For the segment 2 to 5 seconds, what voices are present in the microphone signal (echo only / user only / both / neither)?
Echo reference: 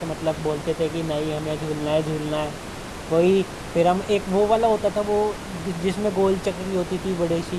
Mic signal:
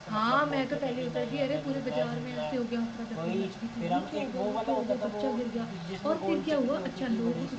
both